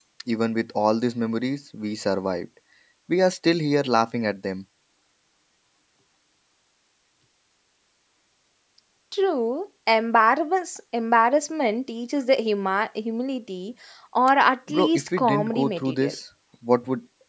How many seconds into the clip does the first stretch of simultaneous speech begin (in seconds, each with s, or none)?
14.7 s